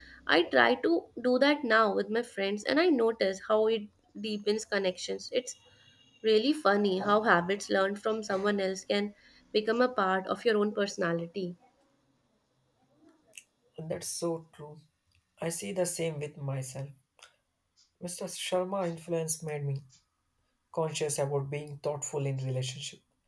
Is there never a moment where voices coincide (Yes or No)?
Yes